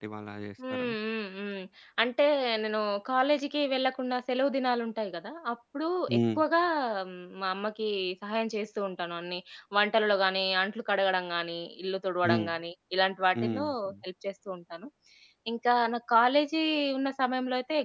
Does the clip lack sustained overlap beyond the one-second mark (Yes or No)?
Yes